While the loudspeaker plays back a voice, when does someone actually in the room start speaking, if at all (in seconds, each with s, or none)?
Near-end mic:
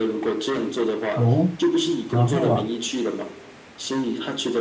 1.1 s